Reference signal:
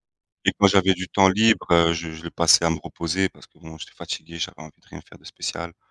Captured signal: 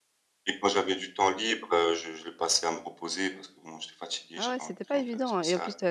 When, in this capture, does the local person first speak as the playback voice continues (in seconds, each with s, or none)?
4.3 s